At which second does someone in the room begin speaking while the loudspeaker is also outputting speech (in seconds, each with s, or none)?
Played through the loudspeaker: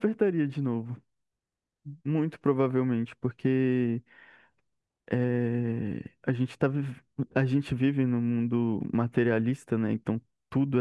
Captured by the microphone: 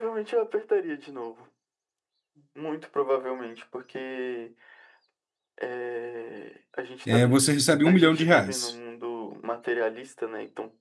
7.0 s